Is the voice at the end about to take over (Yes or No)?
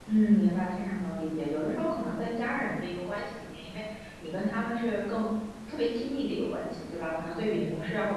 No